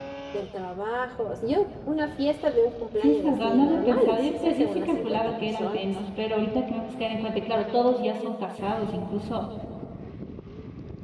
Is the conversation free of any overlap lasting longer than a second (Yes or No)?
No